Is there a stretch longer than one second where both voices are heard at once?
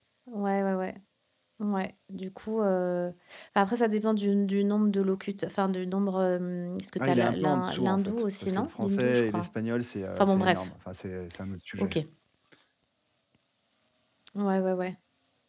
Yes, from 7.0 s

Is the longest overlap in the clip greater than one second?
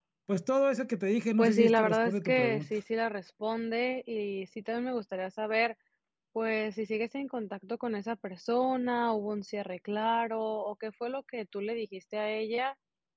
Yes, from 1.4 s

